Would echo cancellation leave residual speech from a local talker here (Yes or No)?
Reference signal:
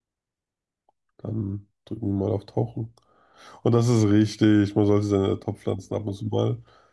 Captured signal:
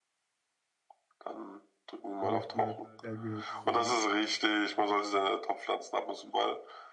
Yes